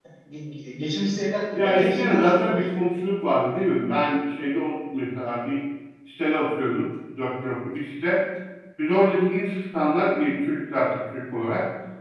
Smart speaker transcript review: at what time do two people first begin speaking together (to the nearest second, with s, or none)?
2 s